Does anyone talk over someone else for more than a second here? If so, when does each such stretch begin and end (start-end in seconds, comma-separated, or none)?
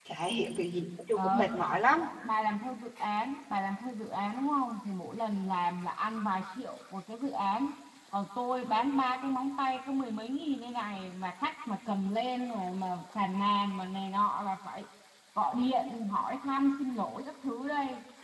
none